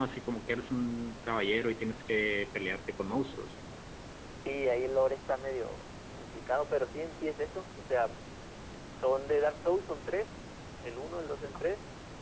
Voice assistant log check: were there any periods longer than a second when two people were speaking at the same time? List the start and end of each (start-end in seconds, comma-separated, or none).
none